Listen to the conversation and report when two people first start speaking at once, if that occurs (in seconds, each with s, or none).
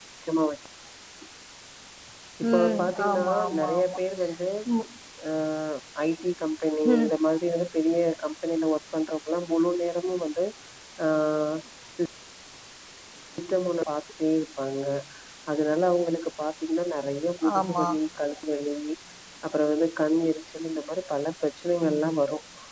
2.5 s